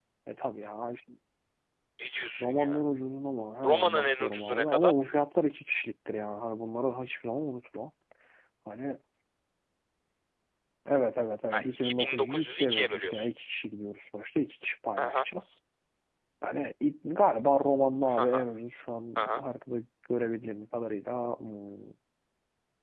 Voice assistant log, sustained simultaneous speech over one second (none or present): present